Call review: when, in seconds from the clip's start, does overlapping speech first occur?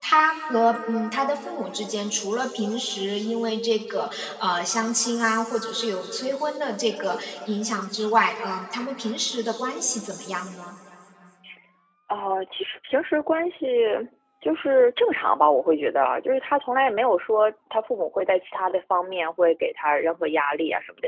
none

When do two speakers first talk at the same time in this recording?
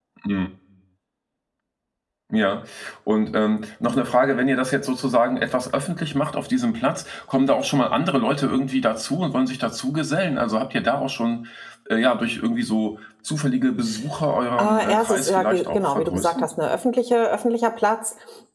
14.6 s

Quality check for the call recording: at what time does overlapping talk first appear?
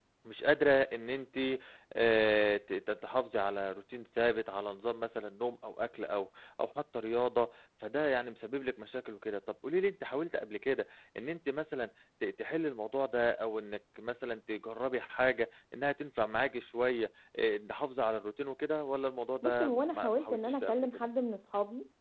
19.4 s

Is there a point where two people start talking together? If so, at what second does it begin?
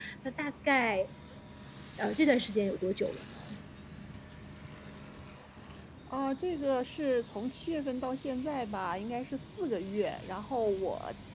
none

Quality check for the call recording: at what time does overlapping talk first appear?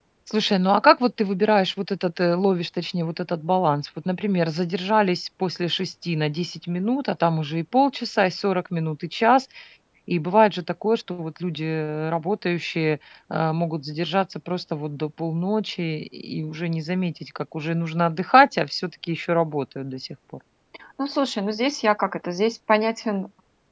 none

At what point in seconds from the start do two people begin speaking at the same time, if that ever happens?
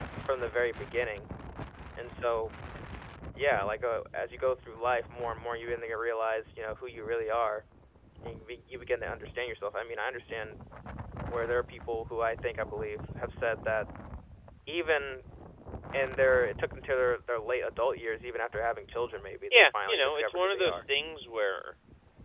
19.5 s

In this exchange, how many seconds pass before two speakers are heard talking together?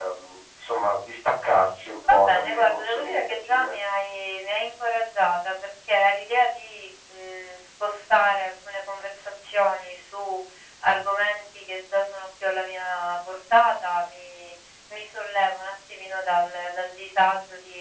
2.0 s

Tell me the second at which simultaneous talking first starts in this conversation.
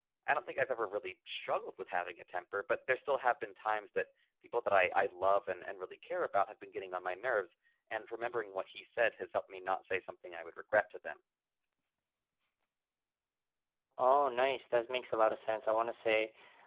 none

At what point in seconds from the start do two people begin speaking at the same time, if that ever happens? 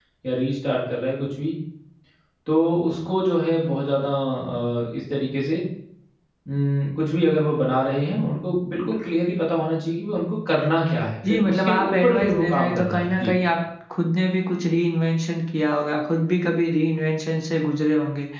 11.2 s

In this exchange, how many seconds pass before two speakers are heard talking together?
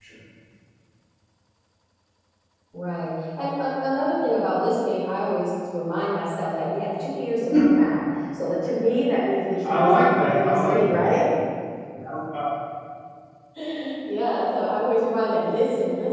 9.6 s

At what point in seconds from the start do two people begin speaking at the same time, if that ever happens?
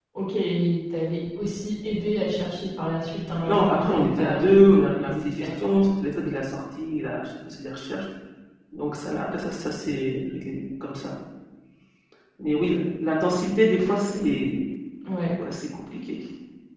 3.4 s

